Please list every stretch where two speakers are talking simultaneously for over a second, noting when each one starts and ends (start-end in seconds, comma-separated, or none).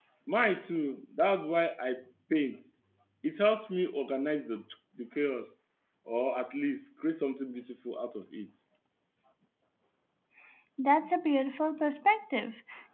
none